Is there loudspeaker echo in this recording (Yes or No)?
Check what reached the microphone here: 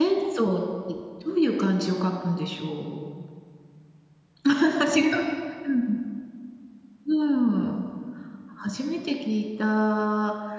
No